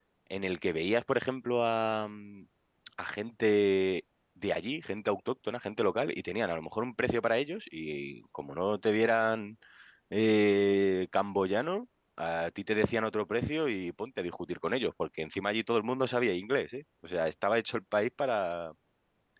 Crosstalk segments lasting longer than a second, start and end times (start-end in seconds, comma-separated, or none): none